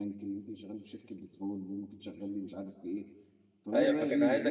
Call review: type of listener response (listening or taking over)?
taking over